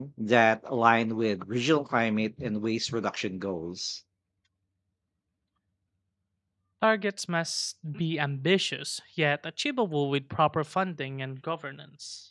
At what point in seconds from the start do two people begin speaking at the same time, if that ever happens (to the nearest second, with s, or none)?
none